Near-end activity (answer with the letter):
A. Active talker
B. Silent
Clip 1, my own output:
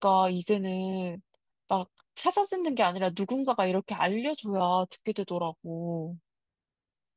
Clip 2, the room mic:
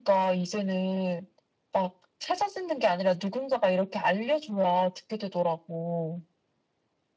B